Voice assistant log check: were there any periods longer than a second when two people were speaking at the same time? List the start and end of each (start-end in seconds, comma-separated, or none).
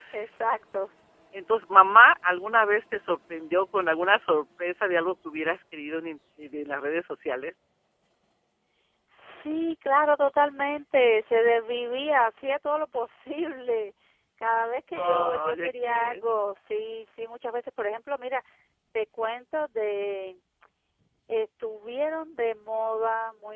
14.9-16.1